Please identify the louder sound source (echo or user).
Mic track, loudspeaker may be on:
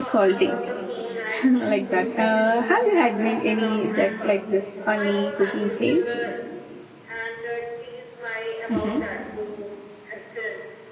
user